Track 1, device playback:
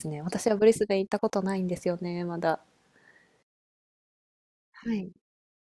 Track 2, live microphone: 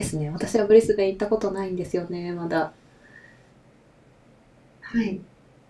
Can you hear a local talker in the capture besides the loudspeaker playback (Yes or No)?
No